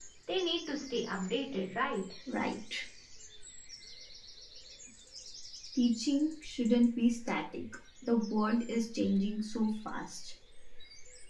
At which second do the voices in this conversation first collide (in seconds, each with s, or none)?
none